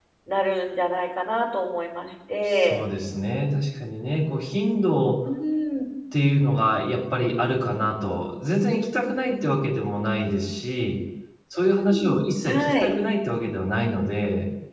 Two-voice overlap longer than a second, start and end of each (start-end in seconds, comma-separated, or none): 11.6-12.9